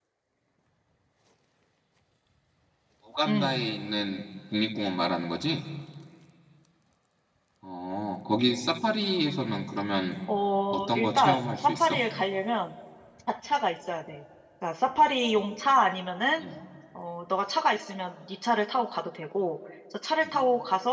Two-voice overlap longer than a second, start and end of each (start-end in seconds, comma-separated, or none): 10.7-12.0